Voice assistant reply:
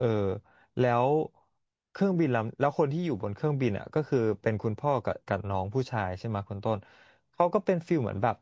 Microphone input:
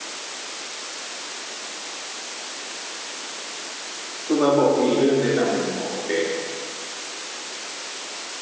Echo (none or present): none